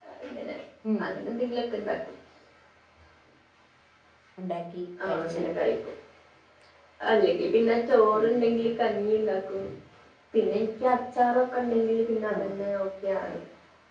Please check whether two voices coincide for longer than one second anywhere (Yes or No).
No